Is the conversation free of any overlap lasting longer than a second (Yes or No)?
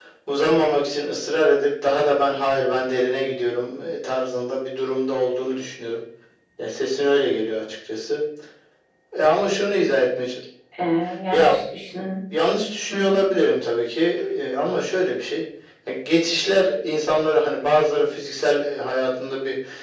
Yes